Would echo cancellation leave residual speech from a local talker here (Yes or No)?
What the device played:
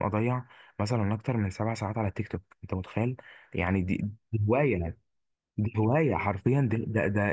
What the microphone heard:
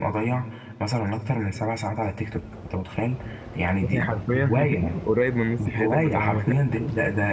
Yes